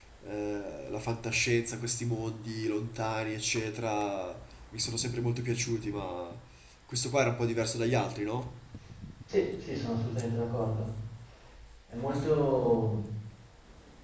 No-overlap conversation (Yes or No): Yes